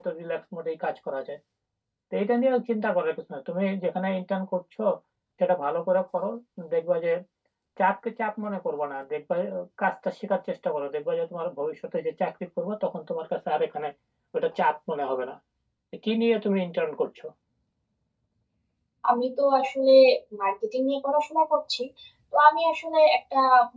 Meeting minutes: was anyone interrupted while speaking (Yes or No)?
No